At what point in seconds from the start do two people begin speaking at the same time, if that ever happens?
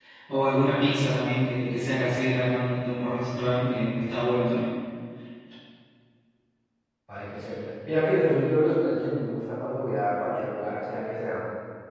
none

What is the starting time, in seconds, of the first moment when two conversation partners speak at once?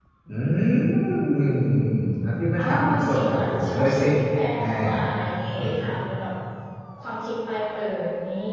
2.6 s

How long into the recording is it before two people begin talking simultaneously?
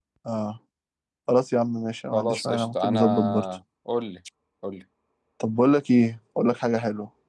2.1 s

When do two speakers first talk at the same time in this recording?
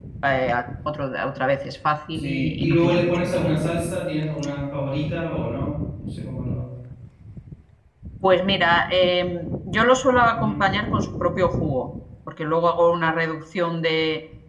2.1 s

